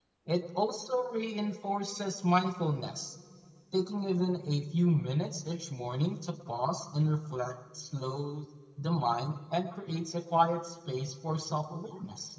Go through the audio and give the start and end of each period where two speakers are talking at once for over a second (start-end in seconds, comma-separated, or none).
none